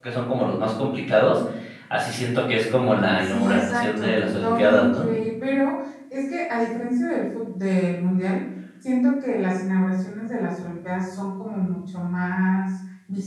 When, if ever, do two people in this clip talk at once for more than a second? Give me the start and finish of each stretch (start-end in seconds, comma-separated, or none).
3.2-5.1